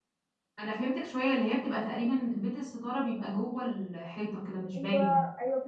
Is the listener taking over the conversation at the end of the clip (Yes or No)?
Yes